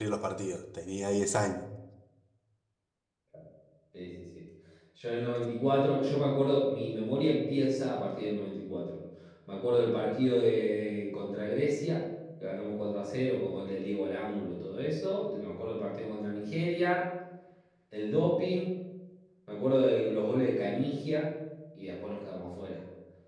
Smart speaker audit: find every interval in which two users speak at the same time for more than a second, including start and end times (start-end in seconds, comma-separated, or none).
none